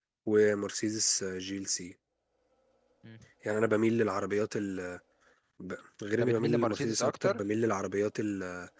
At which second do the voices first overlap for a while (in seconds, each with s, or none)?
6.1 s